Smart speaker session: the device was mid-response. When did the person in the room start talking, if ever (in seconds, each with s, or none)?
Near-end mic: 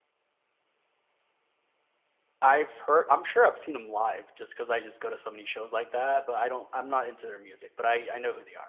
2.4 s